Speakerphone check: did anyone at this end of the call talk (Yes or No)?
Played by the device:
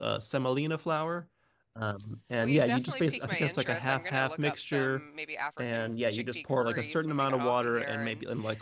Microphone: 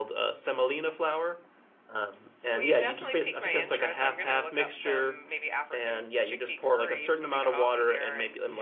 No